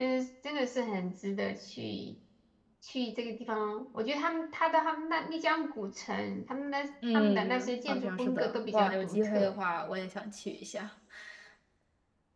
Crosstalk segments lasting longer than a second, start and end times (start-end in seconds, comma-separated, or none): 7.1-9.6